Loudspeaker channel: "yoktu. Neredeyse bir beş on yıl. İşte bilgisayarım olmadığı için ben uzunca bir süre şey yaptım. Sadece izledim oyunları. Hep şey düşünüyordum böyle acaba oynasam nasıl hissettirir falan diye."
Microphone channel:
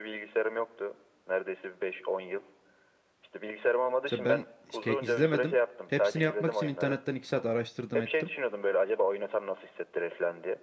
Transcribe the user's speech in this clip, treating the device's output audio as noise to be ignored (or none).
Mesela ben hiç ke- izlemedim. Hepsini yapmak için internetten iki saat araştırdım ettim.